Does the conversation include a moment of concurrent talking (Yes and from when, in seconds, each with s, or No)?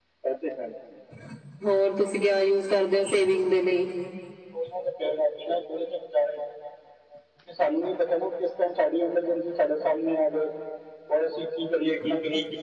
No